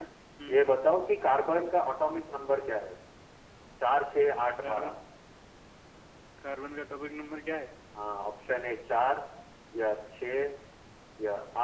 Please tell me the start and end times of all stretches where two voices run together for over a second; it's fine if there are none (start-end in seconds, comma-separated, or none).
none